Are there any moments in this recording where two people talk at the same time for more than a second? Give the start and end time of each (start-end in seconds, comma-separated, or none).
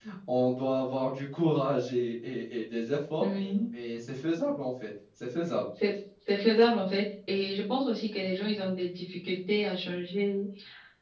none